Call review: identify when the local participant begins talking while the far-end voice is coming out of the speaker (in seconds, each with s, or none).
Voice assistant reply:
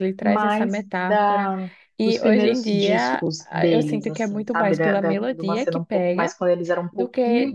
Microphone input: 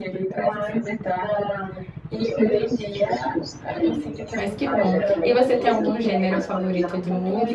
4.3 s